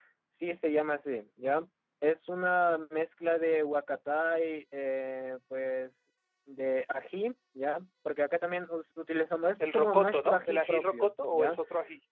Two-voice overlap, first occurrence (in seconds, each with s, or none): 9.6 s